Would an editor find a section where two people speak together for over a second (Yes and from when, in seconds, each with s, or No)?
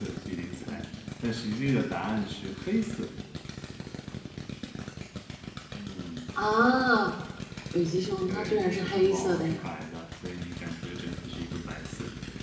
Yes, from 8.3 s